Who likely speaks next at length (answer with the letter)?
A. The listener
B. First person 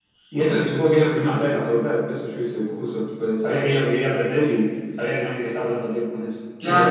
A